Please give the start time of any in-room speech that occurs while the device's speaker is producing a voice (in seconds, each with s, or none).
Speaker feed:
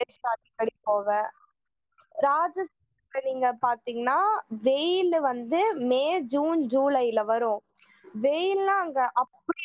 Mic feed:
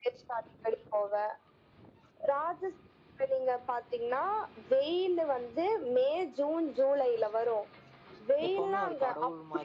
8.4 s